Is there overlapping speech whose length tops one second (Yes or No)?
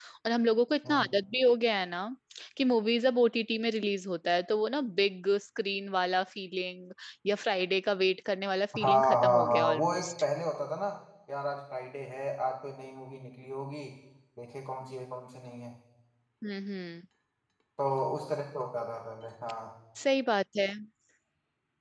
Yes